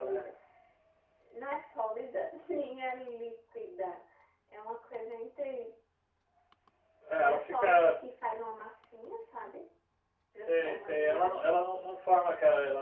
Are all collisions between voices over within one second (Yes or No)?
No